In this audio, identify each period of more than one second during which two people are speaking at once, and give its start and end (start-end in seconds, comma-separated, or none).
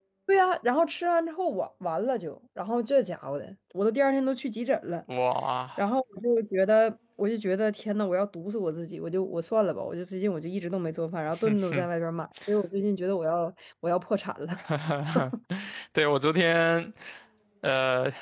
none